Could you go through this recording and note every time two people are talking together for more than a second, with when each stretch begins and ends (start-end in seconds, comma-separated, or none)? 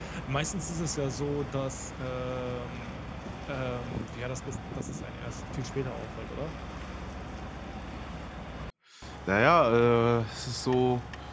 none